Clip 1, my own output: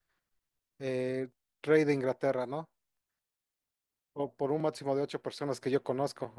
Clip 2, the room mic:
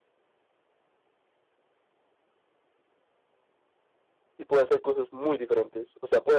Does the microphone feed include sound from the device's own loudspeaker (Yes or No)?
No